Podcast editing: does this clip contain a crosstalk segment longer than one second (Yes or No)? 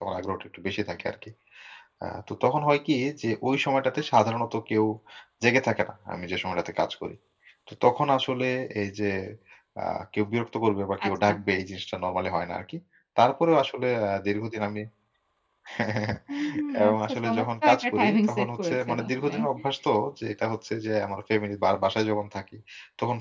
Yes